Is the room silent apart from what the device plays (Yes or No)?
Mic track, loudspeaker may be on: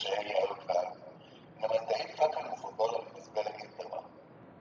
Yes